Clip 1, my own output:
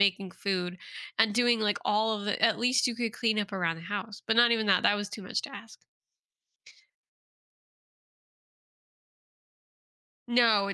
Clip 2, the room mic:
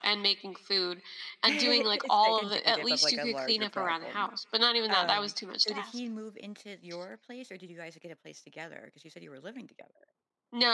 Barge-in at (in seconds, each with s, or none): 1.4 s